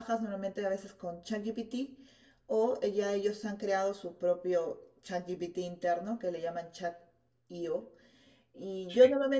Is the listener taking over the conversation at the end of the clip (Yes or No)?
No